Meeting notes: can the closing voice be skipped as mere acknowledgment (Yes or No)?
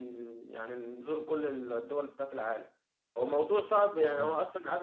Yes